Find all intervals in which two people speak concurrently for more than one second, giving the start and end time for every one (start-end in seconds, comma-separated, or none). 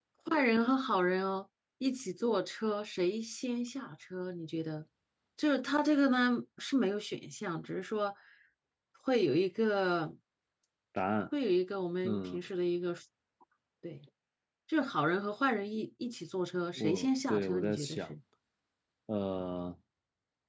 16.8-18.1